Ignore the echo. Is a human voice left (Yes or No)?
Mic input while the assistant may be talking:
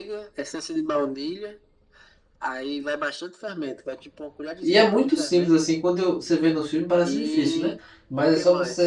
Yes